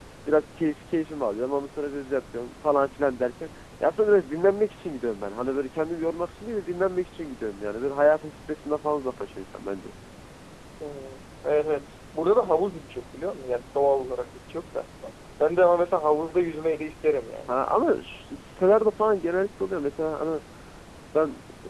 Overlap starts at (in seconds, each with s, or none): none